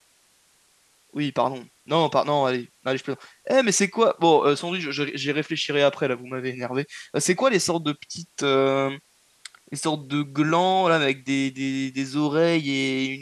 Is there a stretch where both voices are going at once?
No

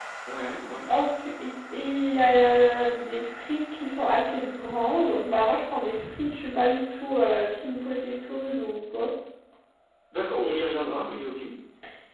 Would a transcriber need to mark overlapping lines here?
No

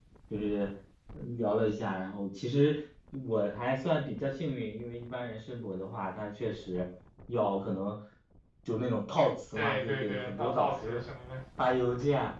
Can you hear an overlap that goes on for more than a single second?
Yes, from 9.5 s

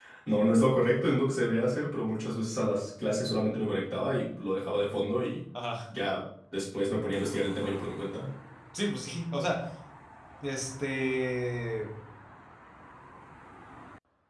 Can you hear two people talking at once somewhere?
No

